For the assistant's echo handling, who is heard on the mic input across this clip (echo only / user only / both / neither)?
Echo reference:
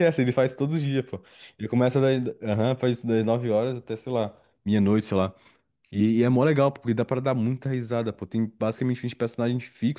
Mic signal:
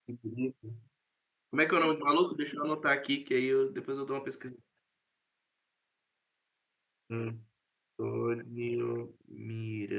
user only